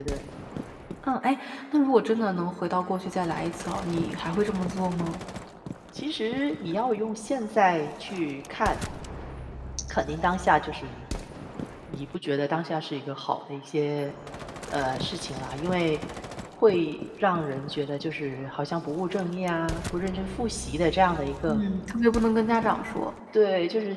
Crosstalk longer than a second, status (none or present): none